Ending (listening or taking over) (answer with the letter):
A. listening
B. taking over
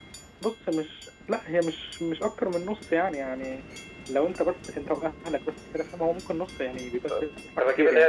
B